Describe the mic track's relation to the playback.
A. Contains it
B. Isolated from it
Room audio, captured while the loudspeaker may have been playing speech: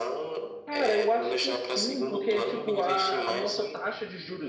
A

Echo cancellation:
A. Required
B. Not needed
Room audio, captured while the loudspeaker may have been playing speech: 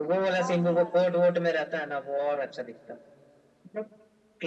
A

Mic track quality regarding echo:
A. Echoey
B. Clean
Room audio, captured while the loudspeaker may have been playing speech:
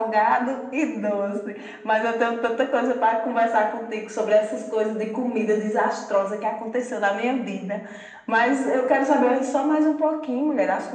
A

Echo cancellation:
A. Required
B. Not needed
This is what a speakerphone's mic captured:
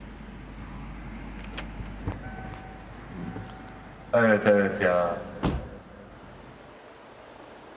B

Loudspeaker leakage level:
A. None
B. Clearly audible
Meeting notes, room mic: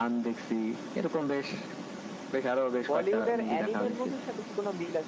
B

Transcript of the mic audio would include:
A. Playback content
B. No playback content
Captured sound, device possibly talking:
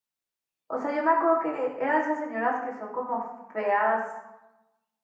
B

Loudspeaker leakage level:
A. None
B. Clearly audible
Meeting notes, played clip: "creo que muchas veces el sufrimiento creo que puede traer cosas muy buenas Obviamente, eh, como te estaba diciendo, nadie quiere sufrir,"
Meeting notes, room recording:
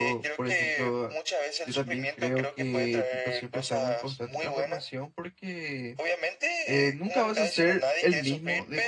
B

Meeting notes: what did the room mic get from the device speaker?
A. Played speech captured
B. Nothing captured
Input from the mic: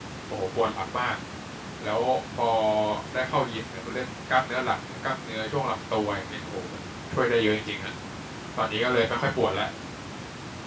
B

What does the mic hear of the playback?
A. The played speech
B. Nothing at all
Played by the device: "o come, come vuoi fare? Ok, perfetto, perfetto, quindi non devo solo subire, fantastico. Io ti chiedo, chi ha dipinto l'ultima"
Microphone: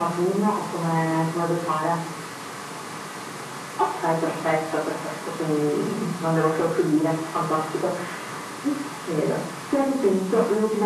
A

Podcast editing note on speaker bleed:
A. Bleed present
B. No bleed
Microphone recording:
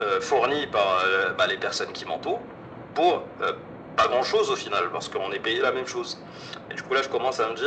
A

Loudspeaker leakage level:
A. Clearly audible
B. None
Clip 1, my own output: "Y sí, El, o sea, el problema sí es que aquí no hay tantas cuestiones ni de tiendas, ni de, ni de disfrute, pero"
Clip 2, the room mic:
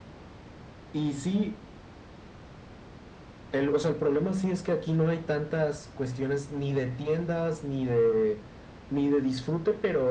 A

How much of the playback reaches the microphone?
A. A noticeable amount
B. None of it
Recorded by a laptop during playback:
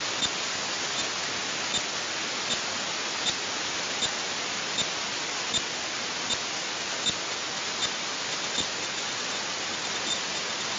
B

